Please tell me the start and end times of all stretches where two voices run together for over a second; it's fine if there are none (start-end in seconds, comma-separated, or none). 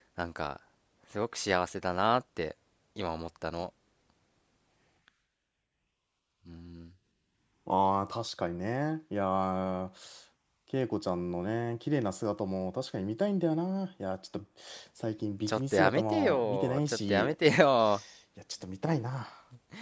15.5-17.3